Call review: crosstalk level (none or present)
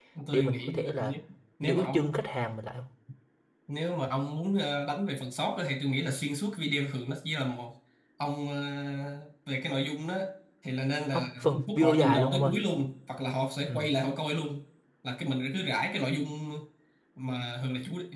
present